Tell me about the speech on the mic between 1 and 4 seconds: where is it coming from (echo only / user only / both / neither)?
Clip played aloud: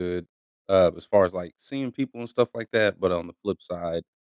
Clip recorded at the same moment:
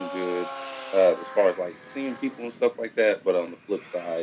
echo only